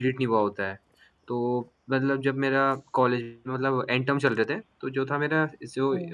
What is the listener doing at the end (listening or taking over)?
listening